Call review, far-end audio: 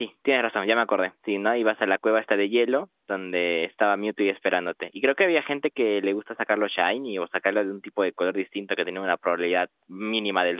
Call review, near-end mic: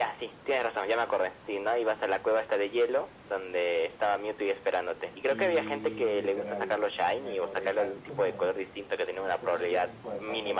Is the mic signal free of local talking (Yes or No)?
No